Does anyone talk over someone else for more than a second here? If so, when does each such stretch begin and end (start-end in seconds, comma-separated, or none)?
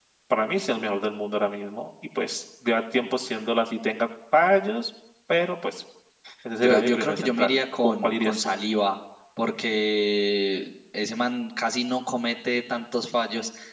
6.6-8.6